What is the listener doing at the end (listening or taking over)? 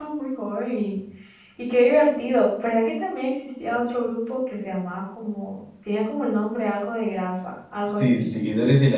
taking over